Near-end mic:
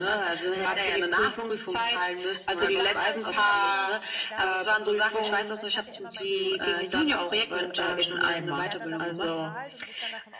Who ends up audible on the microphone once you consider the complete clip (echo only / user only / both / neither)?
both